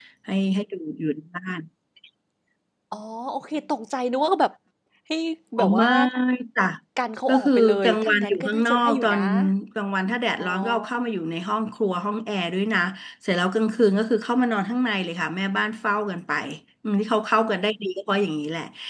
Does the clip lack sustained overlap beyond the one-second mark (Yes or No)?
No